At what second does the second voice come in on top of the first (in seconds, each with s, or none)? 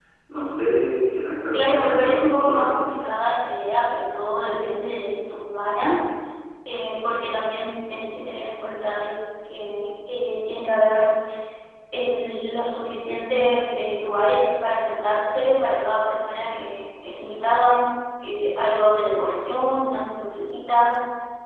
1.5 s